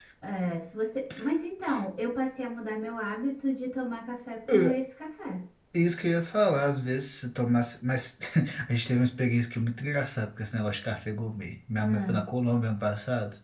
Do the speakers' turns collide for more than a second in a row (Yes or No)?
No